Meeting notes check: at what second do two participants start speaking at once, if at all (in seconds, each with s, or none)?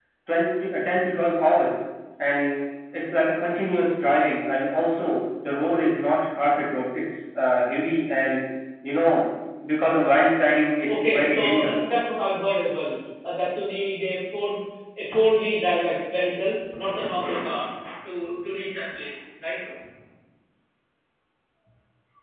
10.6 s